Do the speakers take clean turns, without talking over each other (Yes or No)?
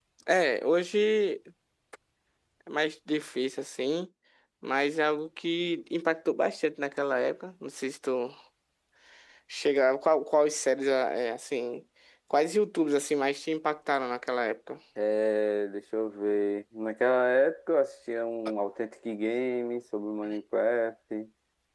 Yes